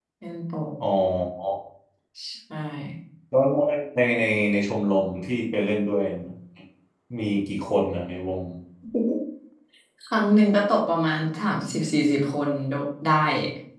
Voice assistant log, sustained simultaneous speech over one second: none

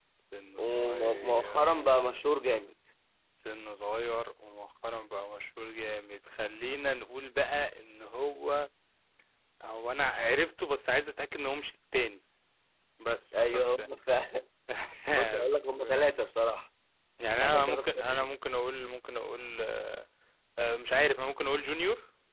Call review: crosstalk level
present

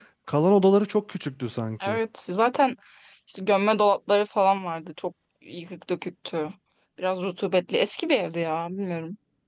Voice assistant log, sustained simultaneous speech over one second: none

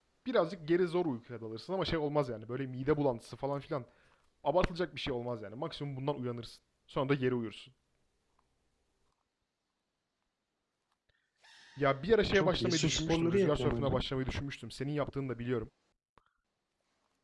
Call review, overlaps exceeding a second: present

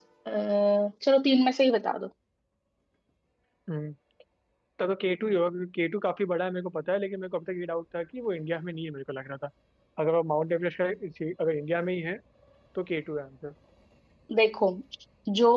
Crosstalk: none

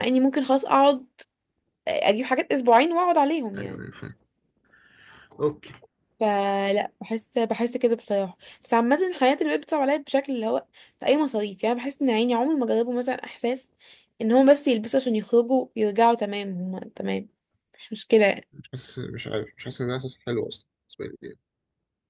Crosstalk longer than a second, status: none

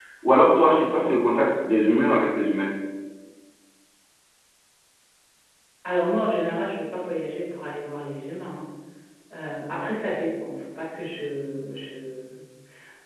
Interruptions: none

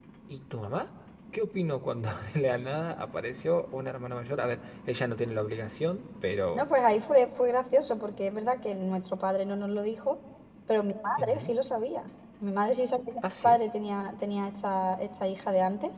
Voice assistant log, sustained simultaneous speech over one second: none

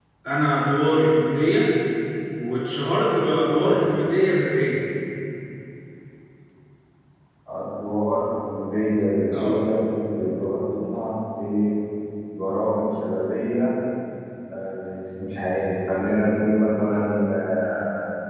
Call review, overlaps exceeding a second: none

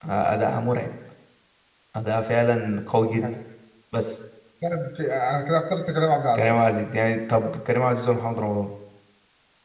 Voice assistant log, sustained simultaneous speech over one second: none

